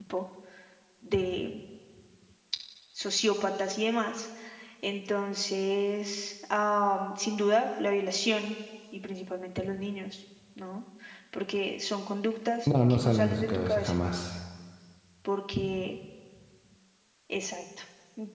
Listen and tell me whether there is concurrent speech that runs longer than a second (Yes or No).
Yes